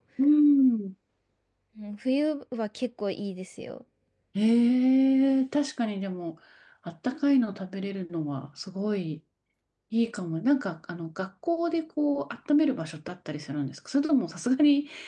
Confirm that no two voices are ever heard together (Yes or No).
Yes